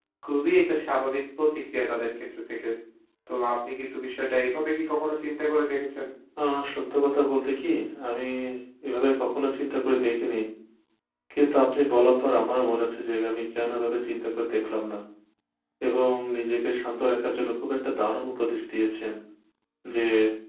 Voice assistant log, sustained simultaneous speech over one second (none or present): none